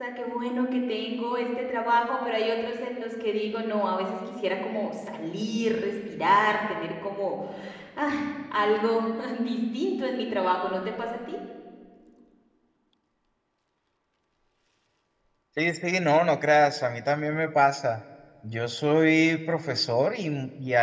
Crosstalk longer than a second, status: none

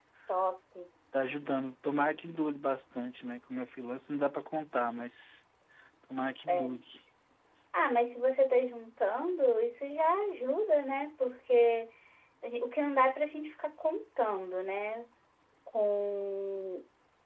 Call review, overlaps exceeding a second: none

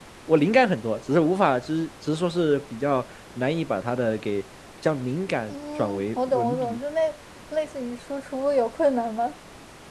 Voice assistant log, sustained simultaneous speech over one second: present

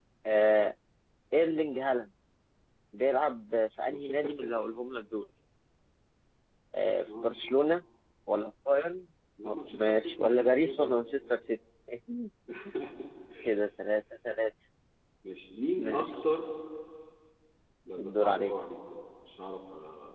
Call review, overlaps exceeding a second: present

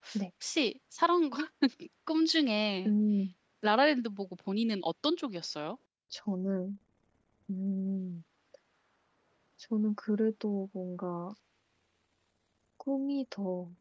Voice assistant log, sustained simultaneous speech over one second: none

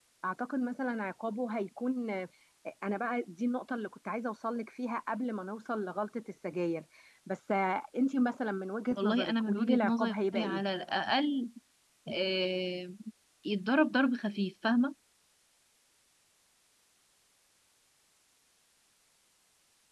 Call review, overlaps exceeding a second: present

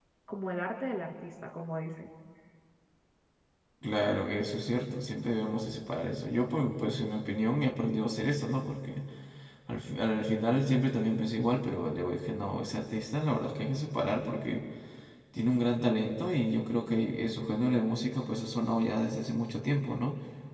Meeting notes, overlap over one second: none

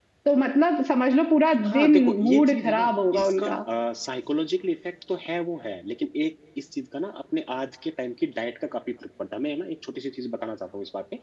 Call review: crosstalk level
present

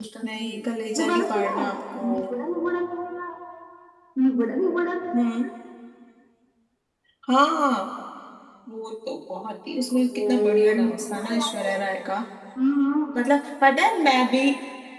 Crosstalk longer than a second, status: present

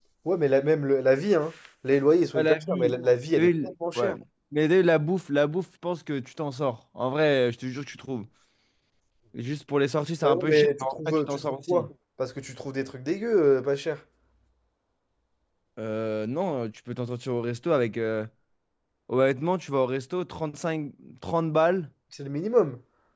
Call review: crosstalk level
present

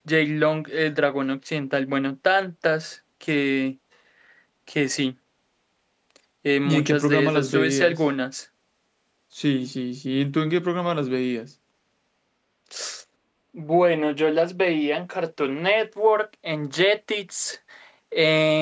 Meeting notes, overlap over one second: present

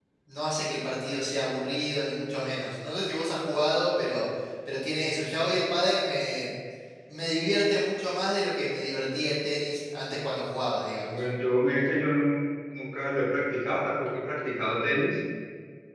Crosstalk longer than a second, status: none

